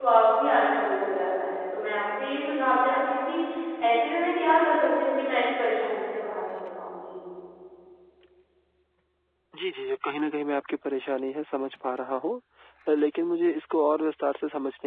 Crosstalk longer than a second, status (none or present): none